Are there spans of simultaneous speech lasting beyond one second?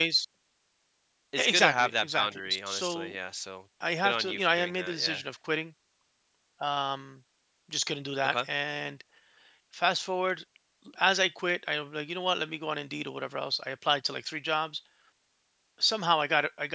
Yes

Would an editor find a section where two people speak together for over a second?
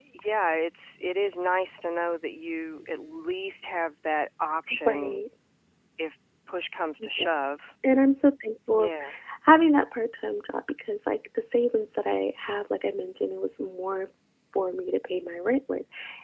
No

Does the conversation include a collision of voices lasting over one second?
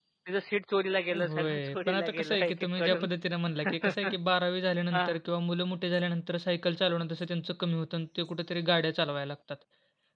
Yes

